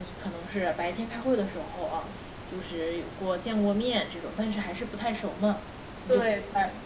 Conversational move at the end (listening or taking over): listening